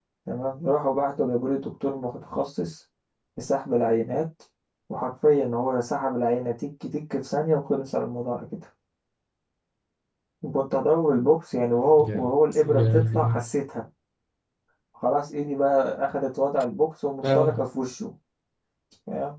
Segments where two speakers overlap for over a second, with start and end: 12.0-13.4

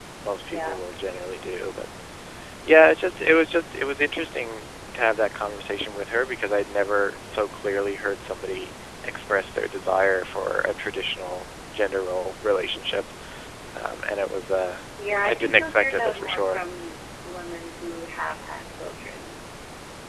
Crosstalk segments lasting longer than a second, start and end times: 15.2-16.6

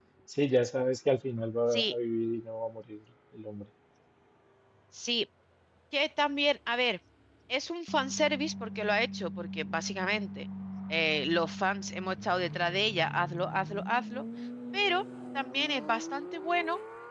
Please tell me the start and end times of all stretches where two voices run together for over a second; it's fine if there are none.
none

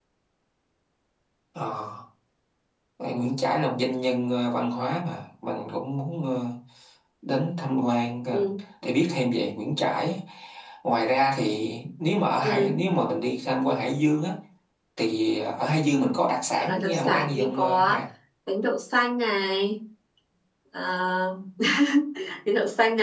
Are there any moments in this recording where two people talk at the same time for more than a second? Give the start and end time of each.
16.6-18.0

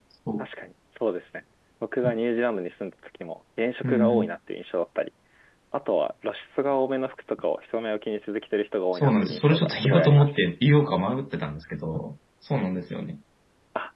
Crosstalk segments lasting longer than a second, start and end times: 8.9-10.4

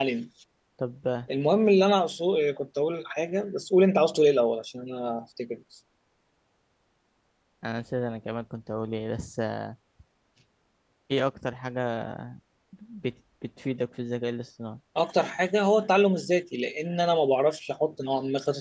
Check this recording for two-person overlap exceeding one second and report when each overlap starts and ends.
none

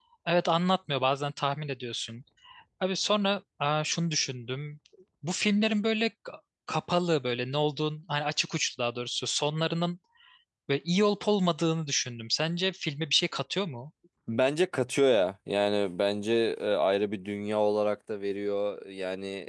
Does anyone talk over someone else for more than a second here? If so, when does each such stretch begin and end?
none

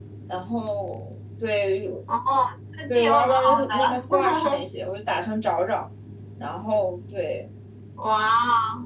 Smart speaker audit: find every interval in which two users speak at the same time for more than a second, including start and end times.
2.9-4.6

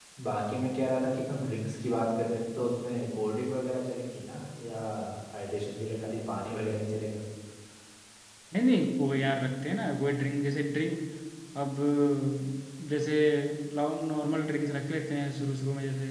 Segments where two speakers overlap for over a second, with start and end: none

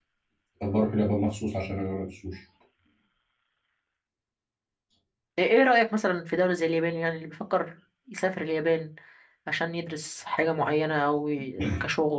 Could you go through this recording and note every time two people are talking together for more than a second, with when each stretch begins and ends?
none

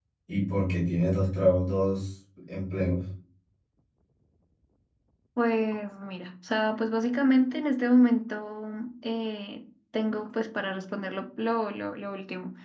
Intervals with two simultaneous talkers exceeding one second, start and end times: none

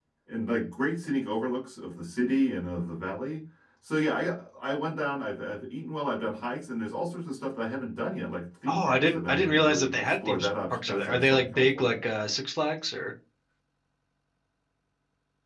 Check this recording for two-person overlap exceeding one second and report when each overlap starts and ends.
8.7-12.0

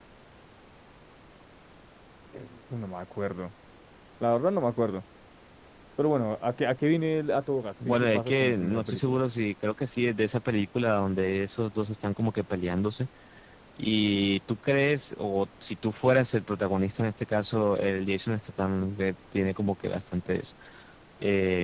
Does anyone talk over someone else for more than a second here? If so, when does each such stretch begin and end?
7.8-9.2

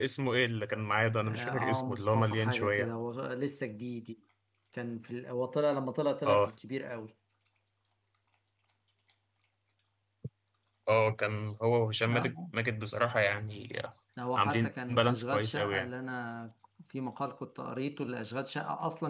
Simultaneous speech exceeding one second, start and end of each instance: 1.2-2.9, 14.4-15.9

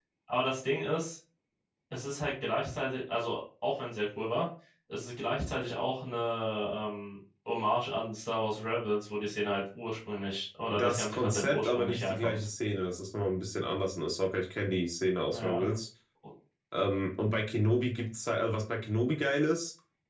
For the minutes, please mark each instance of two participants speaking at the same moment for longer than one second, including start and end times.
10.7-12.5

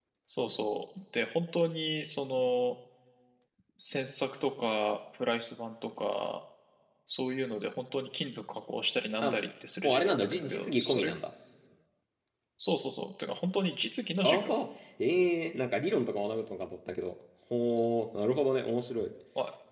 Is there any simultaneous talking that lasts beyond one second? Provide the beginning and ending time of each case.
9.8-11.1

